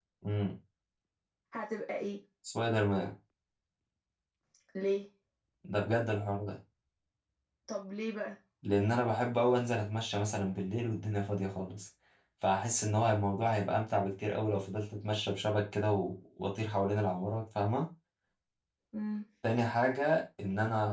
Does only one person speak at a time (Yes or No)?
Yes